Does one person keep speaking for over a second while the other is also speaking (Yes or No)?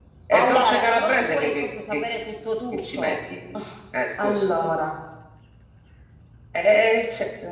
Yes